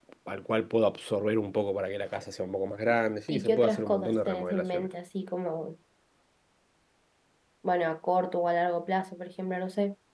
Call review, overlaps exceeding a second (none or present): present